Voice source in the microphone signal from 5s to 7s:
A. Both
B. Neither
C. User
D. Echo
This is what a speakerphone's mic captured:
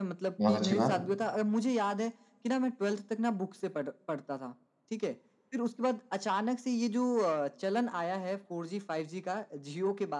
D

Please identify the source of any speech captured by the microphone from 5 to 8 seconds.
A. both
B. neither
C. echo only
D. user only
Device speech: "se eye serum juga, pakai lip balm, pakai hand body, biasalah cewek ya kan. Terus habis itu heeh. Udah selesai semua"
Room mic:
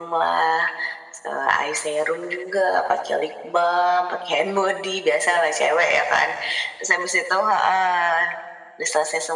C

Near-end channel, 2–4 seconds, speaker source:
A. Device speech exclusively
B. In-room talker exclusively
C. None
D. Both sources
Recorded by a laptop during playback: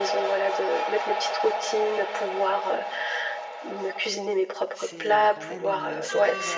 A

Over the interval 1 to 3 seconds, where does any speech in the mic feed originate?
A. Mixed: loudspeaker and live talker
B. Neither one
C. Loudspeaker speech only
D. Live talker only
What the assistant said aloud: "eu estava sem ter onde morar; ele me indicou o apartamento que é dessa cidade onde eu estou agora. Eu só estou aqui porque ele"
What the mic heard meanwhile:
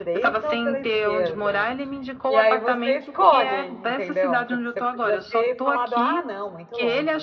A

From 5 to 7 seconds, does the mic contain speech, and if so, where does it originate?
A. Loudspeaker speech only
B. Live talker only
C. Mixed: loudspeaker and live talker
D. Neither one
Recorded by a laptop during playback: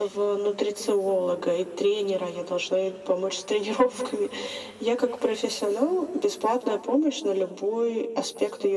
A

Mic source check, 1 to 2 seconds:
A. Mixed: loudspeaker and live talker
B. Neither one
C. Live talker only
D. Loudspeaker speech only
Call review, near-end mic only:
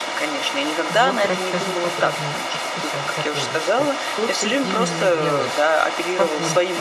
A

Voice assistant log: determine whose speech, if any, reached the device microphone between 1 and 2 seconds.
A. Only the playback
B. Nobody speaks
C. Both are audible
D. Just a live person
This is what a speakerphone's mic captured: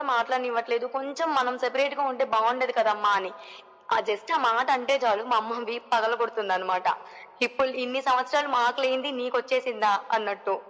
A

